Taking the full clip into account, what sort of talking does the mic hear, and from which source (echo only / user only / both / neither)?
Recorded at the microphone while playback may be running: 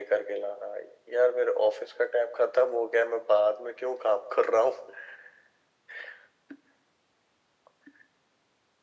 echo only